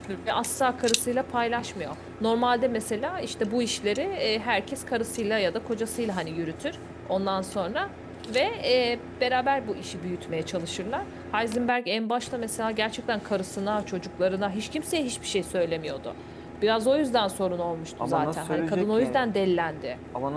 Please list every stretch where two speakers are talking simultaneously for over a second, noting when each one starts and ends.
18.0-19.2

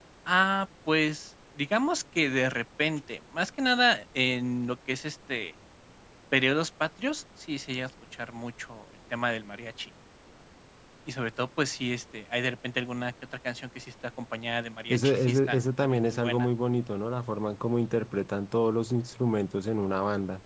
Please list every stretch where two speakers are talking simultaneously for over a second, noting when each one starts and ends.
14.9-16.5

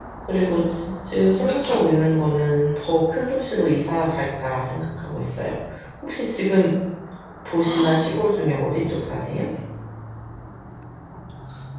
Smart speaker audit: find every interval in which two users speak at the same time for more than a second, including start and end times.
7.6-9.0

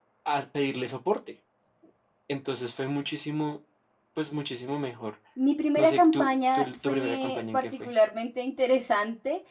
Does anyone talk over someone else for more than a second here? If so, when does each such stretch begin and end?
5.8-7.9

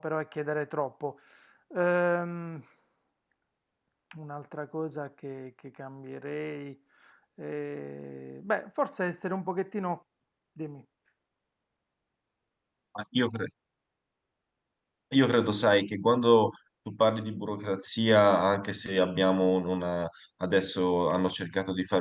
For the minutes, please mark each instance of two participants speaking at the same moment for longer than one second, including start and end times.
none

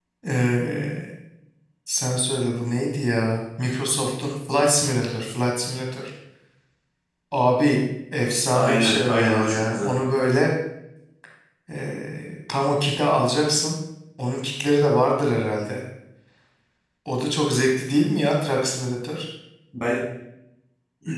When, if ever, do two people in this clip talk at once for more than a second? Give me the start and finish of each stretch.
8.5-9.9

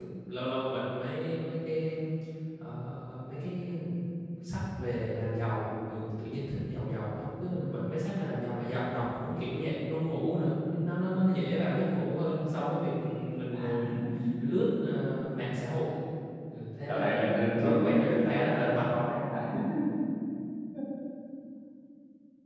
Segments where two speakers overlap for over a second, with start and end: 16.9-18.9

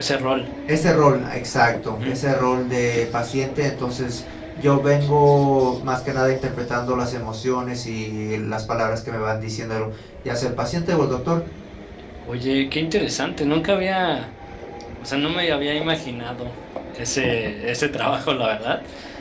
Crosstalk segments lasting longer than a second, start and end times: none

